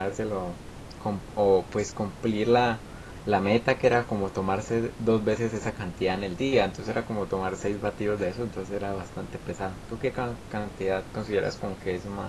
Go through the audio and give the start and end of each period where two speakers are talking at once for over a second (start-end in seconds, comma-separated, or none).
none